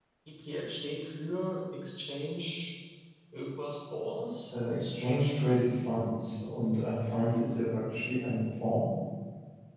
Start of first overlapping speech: none

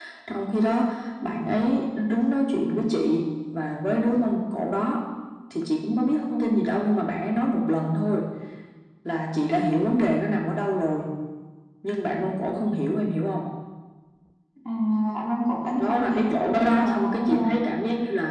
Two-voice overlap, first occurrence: 16 s

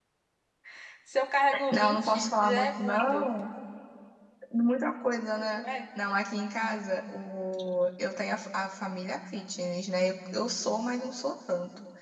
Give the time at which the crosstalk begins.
2 s

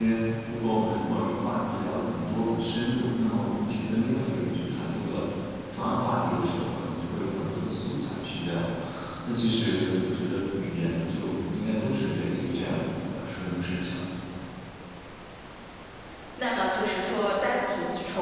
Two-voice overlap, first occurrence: none

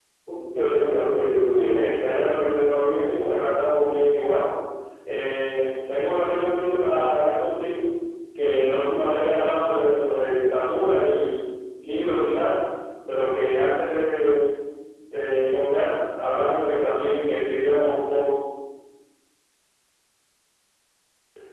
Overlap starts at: 1 s

